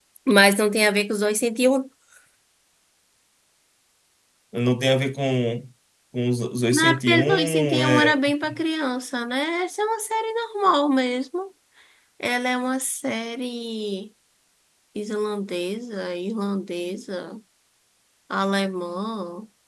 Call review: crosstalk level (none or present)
present